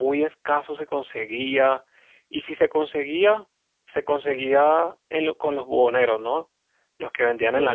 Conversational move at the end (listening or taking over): taking over